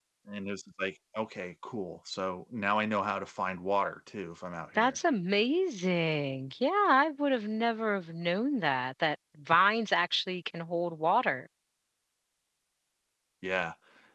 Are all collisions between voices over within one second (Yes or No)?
Yes